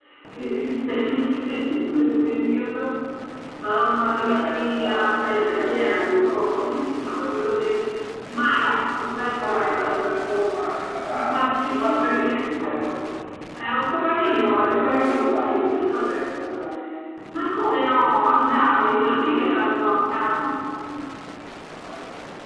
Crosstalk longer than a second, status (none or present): present